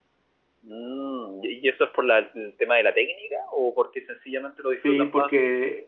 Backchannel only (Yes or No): No